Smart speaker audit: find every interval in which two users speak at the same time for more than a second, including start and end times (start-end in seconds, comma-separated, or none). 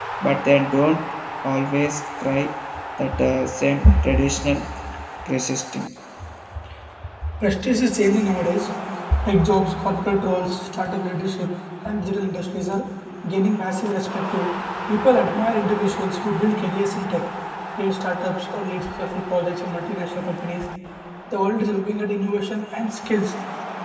none